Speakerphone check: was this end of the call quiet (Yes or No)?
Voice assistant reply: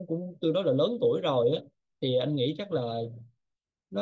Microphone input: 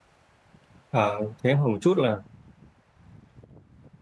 No